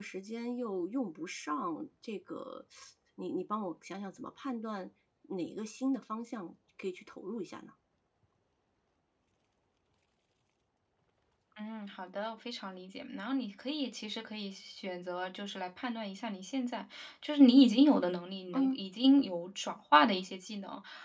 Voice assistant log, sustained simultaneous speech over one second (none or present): none